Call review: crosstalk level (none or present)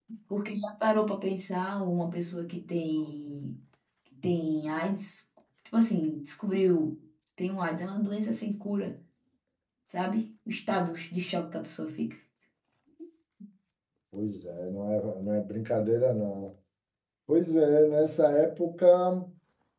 none